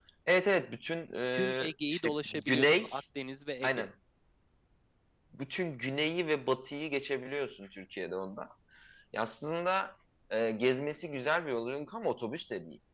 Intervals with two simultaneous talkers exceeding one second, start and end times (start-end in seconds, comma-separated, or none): 1.3-2.9